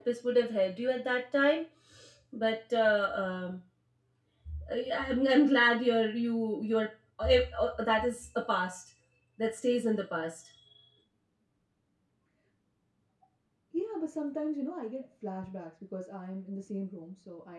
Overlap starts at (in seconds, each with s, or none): none